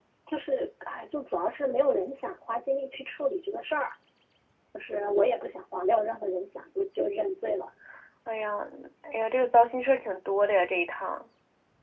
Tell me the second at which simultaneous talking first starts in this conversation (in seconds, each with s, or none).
none